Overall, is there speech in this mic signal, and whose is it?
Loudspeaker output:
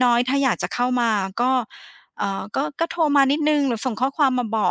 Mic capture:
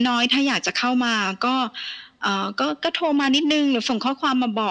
echo only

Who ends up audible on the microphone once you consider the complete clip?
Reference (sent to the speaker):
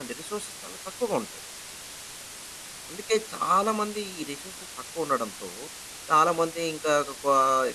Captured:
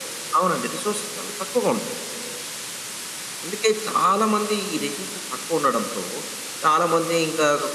echo only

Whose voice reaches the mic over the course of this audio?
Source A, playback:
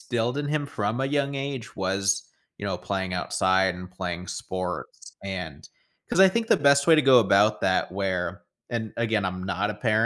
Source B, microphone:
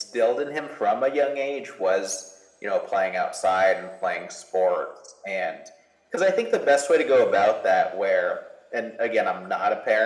echo only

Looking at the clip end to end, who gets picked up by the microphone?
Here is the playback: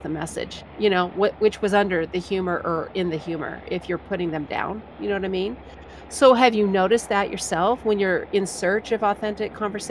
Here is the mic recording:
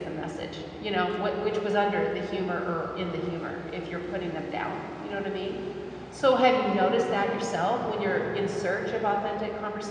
echo only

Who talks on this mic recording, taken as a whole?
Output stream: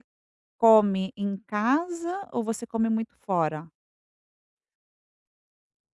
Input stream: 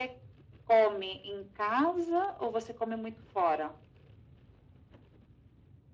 echo only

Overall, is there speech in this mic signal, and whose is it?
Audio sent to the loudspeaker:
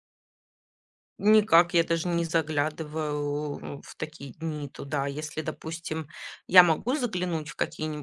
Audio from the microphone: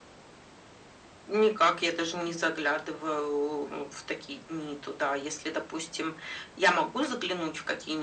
echo only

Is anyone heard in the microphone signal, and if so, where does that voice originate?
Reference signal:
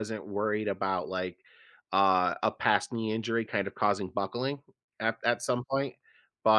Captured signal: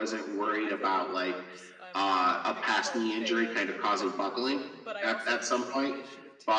both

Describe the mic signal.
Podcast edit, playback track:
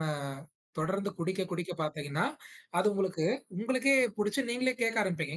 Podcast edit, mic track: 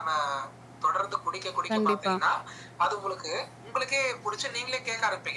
both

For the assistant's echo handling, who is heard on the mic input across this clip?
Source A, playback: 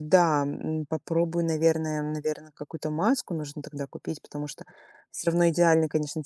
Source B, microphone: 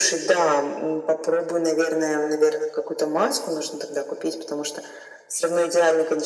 echo only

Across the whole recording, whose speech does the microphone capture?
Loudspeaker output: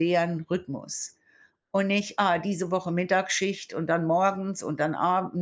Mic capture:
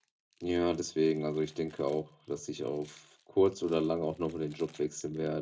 user only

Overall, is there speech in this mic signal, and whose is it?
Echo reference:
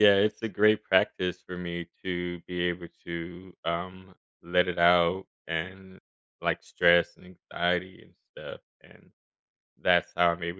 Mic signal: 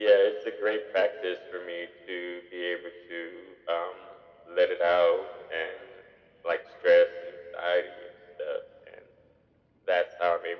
echo only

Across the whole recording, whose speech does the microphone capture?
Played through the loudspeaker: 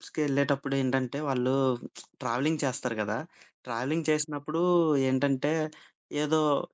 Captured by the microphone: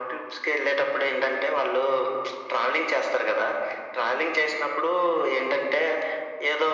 echo only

